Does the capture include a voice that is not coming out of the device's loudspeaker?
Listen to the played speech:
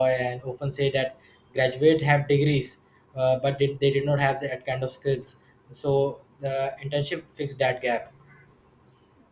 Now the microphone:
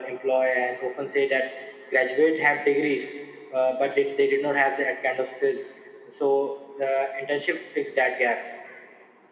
No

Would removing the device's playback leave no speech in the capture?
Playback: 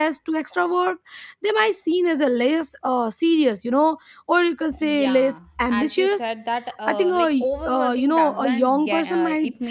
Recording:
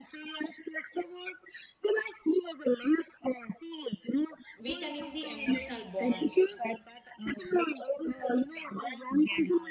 No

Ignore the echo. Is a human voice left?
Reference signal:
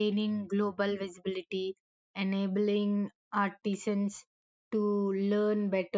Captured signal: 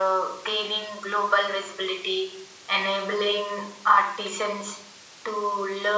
No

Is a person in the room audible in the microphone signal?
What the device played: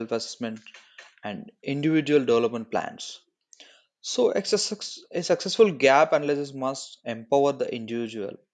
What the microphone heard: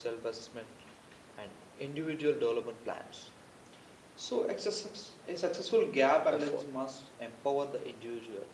Yes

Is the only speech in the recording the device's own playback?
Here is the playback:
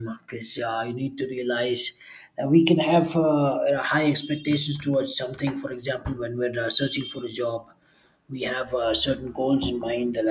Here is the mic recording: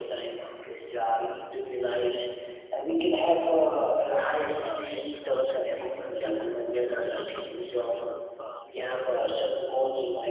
No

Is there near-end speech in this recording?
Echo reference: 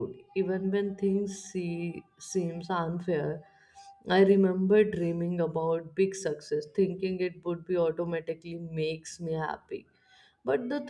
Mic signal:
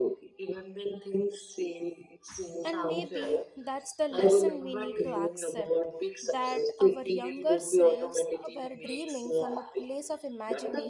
Yes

